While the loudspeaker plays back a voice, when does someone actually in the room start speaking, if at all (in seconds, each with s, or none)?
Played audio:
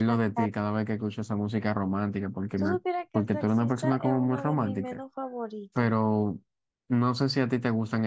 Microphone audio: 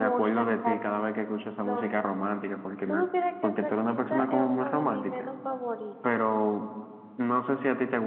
1.6 s